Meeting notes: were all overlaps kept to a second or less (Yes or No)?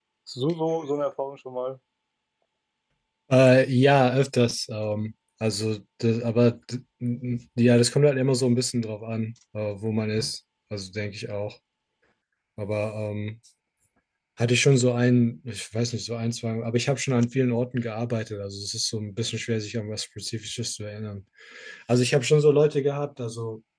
Yes